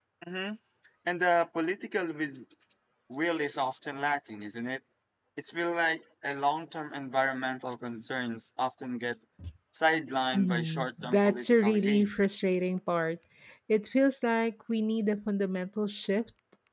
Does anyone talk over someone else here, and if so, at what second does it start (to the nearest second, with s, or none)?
10 s